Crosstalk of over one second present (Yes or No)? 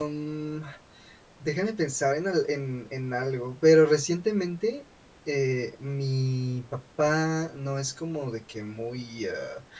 No